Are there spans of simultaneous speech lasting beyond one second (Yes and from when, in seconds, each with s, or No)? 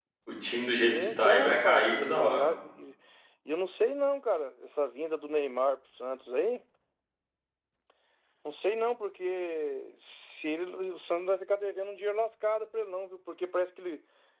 Yes, from 0.8 s